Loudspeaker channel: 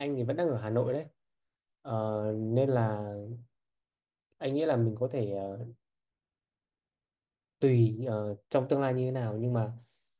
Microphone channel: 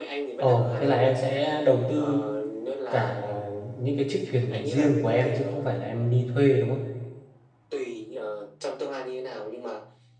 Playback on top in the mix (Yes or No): No